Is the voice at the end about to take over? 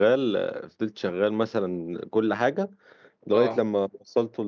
No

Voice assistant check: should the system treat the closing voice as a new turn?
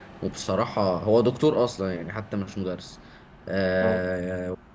No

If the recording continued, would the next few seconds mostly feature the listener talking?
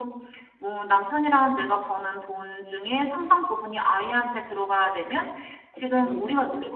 No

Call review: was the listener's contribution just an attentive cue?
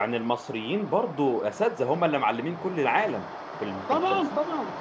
No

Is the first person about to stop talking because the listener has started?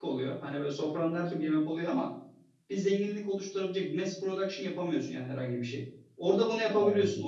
No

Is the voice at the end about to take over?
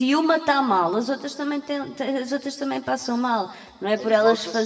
Yes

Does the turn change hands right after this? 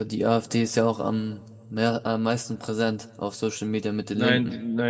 Yes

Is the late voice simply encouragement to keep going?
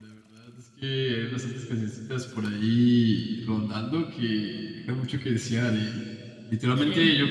Yes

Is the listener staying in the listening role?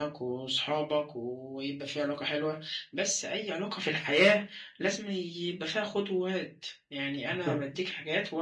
Yes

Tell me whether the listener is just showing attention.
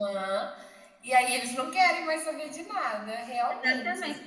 No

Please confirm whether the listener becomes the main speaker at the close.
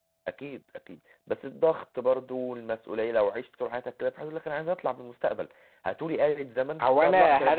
Yes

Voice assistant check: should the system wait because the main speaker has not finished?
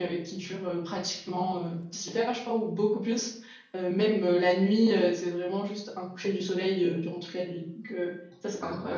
No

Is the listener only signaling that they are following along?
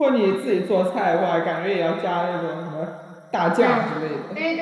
No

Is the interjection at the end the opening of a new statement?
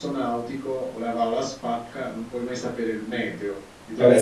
Yes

